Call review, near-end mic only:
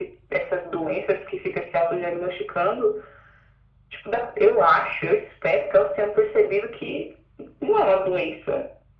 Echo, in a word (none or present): present